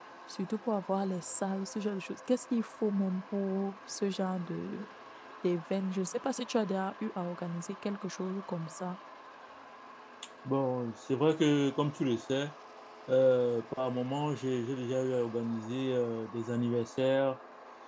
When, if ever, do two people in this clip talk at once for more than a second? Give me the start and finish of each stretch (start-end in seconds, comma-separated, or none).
none